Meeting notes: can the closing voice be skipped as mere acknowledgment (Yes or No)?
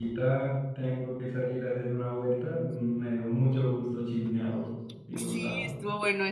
No